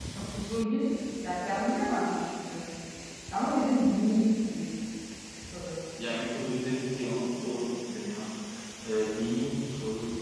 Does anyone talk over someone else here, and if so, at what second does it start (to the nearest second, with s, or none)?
none